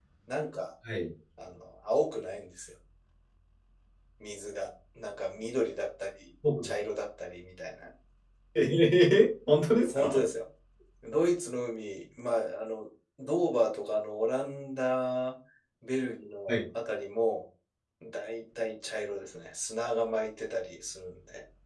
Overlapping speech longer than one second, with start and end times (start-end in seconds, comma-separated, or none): none